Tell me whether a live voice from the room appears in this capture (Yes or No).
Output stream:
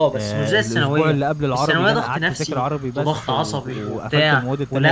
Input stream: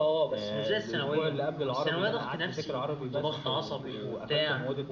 Yes